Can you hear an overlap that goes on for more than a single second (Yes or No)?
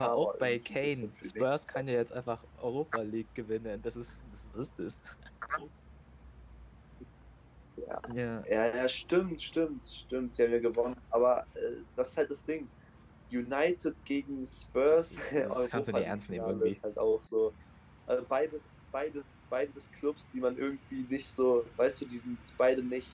Yes